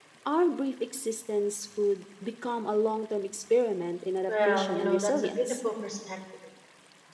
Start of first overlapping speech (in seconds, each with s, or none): 4.3 s